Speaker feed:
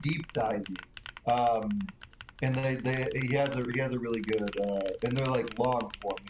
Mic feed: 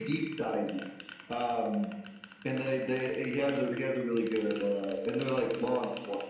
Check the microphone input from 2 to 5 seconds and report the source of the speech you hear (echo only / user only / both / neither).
echo only